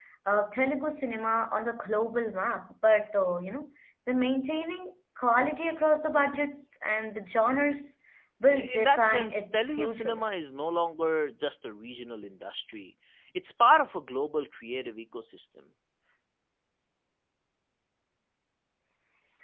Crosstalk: present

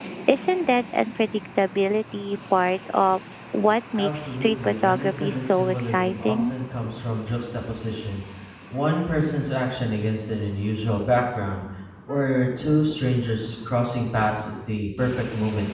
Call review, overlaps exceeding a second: present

